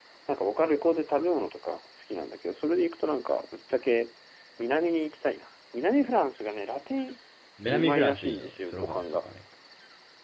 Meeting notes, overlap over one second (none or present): present